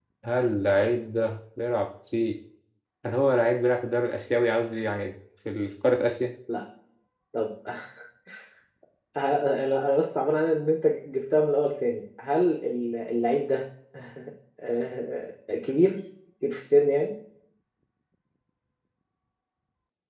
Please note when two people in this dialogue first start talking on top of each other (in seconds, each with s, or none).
none